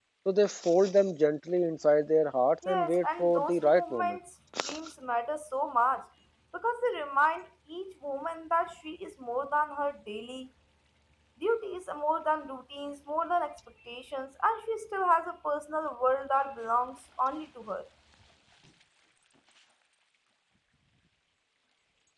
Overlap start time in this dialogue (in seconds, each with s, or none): 2.6 s